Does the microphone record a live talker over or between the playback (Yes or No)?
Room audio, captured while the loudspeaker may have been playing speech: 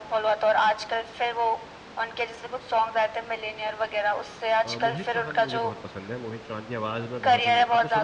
Yes